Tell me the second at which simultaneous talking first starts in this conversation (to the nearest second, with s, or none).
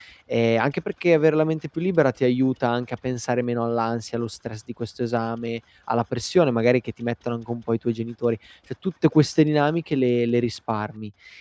none